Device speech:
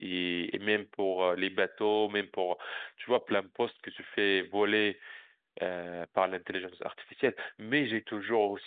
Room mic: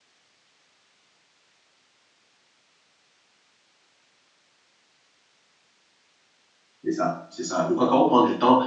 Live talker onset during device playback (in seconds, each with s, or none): 6.8 s